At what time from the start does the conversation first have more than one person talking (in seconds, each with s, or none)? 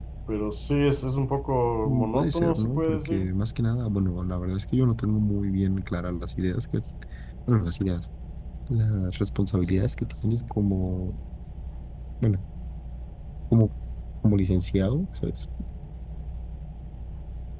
1.9 s